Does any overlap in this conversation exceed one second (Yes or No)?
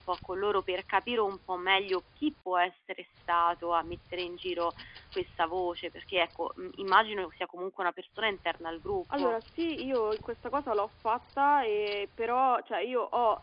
No